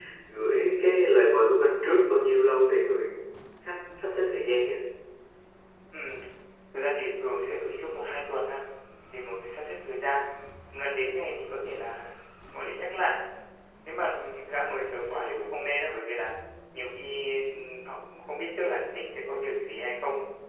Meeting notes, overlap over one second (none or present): none